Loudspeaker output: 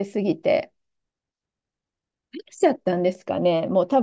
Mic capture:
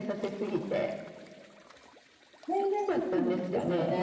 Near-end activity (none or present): present